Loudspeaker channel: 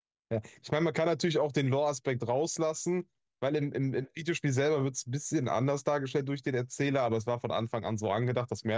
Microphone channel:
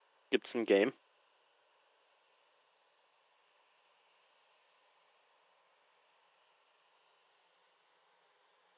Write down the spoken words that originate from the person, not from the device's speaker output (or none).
gibt es ein Game.